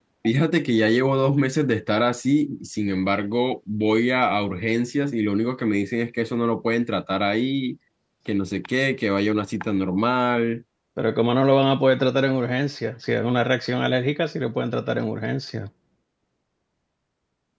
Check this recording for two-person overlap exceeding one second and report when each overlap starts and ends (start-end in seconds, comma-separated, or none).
none